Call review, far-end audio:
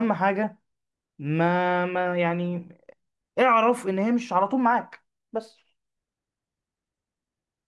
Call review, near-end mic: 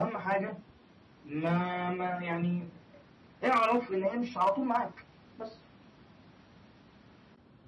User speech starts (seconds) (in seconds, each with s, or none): none